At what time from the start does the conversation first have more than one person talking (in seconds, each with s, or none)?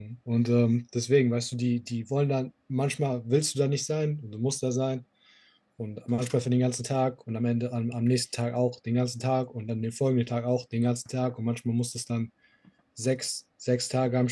none